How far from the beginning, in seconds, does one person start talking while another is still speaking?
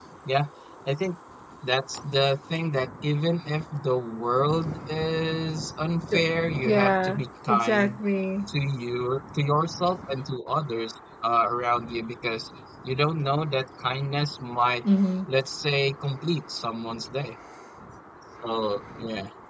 7 s

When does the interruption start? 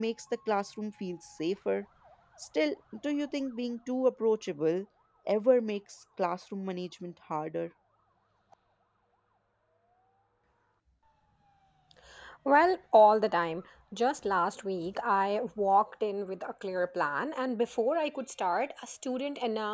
none

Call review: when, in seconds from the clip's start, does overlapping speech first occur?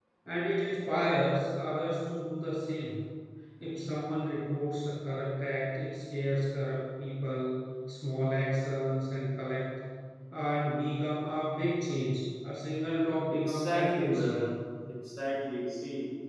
13 s

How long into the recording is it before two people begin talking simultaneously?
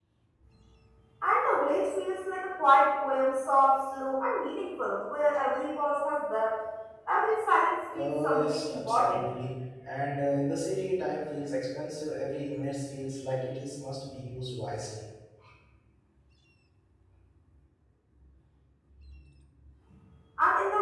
8 s

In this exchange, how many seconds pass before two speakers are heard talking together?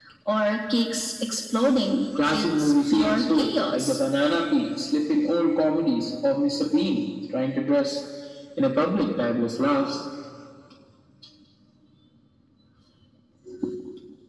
2 s

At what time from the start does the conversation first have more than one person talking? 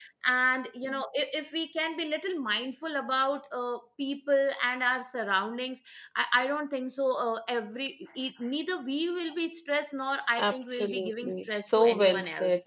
10 s

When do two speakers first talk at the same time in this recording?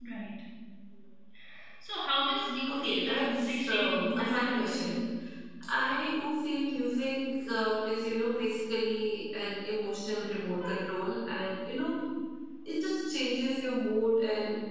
3 s

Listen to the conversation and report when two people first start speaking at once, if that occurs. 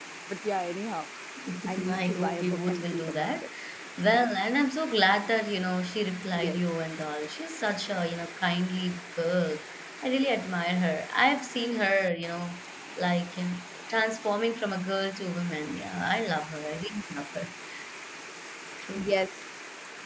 2 s

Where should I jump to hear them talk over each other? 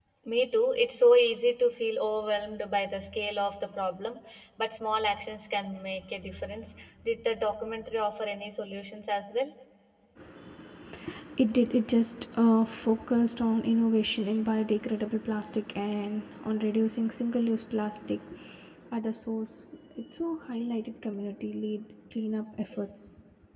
none

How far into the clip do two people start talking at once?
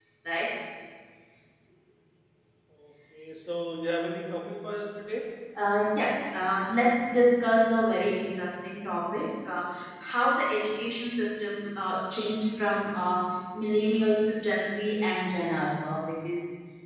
none

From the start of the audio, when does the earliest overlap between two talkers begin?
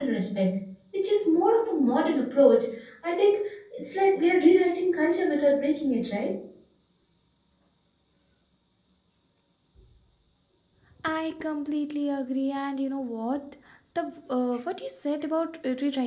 none

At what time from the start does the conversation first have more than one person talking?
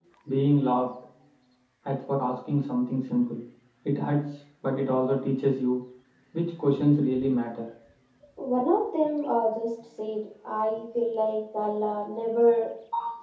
none

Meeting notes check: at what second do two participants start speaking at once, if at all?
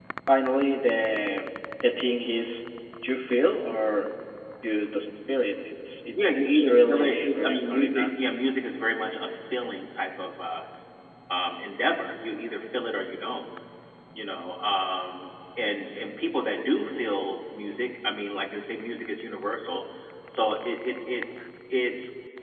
6 s

